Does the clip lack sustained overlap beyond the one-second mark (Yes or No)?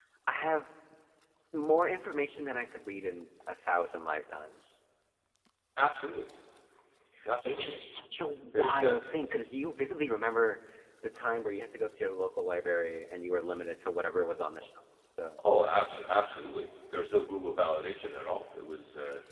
Yes